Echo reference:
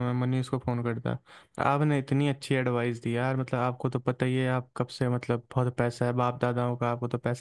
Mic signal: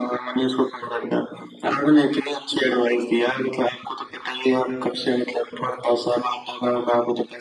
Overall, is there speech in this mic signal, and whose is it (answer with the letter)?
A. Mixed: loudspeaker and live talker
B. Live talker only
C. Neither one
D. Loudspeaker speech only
D